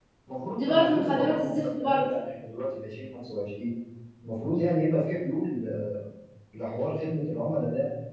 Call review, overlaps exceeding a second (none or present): present